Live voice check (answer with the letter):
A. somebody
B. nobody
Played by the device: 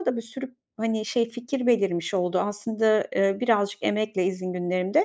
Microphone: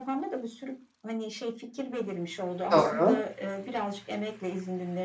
A